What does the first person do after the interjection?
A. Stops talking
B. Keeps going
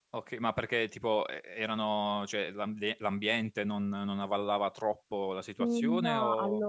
A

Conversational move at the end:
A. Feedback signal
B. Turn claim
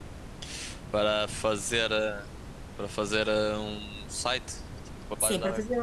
B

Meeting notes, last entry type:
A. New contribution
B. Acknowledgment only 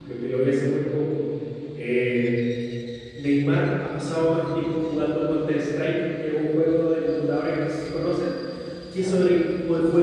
B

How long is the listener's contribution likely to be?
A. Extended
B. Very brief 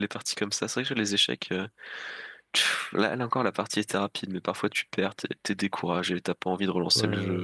A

